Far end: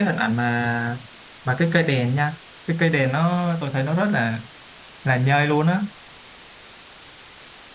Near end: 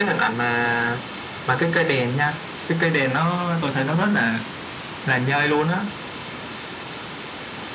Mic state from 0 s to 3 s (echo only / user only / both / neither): echo only